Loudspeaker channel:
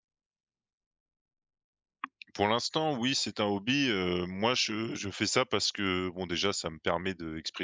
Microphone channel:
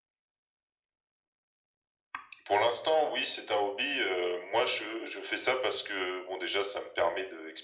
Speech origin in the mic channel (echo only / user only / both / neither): echo only